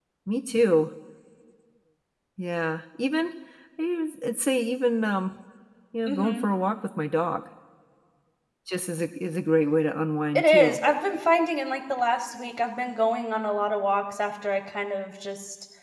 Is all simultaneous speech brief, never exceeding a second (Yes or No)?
Yes